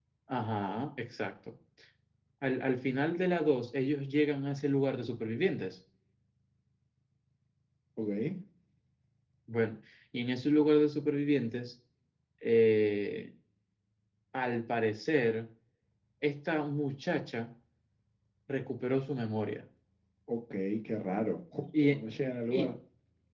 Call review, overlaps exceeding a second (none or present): none